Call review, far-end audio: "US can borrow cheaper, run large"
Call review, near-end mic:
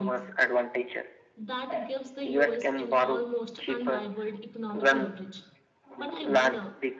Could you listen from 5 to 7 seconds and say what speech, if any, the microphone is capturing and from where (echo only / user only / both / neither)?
both